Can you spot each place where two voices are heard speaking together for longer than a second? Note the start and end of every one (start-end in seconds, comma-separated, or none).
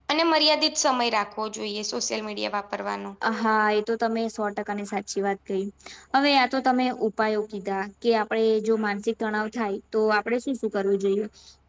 none